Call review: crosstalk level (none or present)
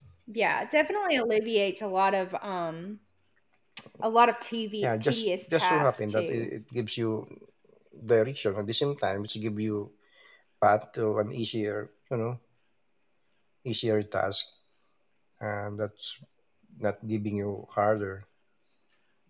present